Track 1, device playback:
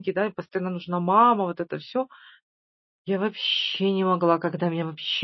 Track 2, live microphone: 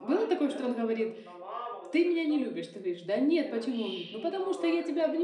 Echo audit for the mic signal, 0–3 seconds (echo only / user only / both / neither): both